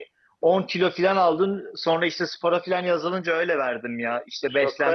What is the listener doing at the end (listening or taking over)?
taking over